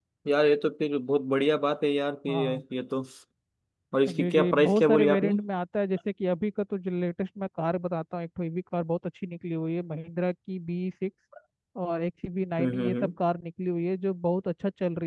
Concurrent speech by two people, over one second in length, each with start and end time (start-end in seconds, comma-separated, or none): 4.1-5.3